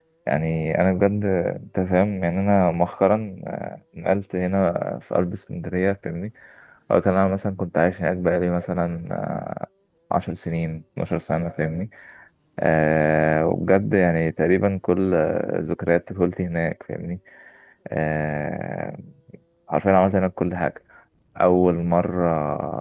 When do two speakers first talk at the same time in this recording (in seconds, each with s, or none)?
none